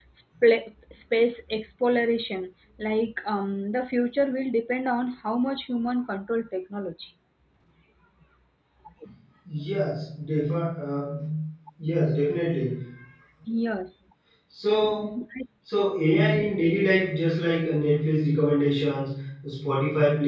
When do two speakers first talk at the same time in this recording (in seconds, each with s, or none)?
none